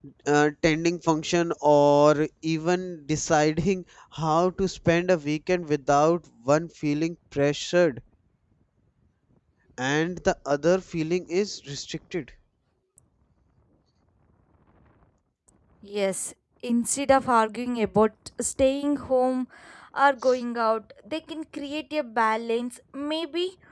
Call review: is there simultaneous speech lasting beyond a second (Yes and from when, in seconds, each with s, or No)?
No